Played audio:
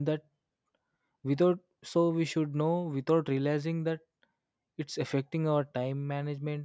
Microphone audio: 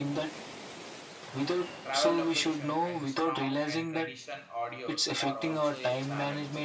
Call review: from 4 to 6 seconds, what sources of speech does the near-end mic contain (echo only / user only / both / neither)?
both